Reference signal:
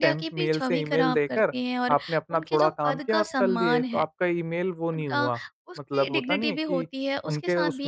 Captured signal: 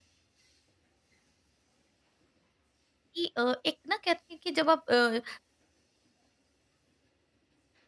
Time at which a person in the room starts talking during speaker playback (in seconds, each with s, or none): 3.1 s